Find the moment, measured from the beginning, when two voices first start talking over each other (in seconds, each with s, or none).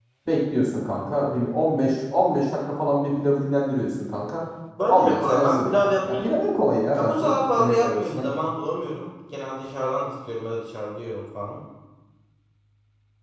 4.9 s